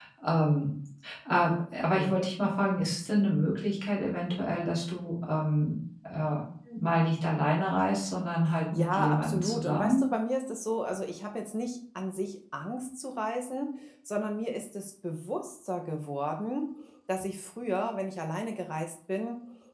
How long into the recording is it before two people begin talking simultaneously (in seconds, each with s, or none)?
8.8 s